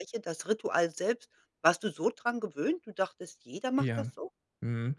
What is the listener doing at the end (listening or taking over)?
taking over